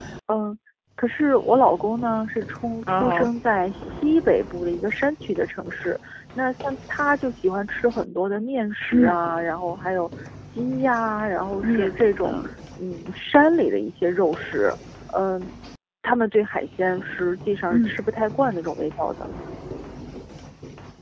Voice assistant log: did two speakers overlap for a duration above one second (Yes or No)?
No